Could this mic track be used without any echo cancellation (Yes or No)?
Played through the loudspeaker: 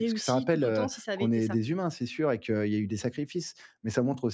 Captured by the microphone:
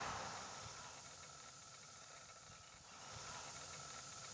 Yes